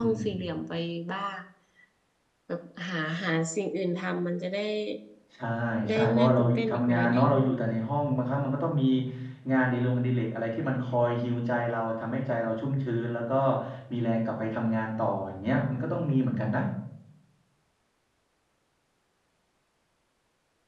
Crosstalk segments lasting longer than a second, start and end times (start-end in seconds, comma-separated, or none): 5.9-7.3